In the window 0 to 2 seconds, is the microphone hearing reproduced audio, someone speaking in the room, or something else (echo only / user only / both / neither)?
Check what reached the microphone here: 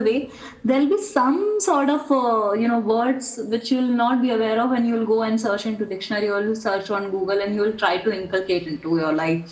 echo only